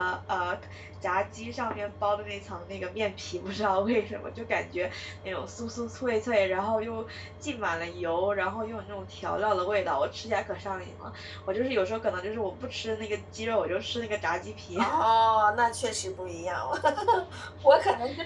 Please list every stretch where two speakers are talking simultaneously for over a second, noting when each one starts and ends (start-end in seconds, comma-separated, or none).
none